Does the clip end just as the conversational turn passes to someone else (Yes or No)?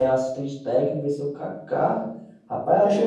No